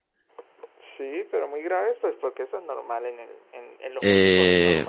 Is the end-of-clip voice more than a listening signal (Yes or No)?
Yes